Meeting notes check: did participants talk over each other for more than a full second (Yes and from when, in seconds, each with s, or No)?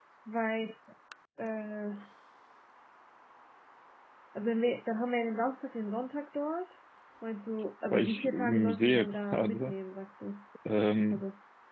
Yes, from 7.9 s